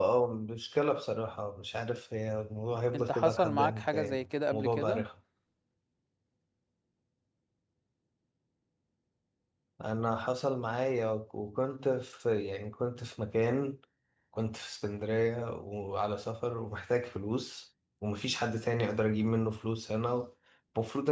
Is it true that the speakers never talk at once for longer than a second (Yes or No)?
No